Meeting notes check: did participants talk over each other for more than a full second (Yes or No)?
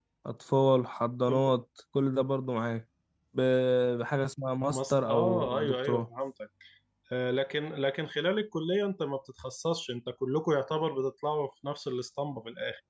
Yes